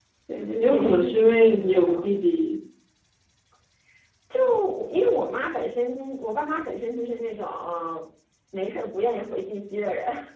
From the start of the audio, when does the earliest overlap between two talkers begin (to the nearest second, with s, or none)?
1 s